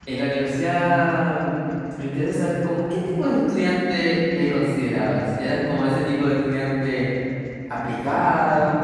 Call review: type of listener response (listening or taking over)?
listening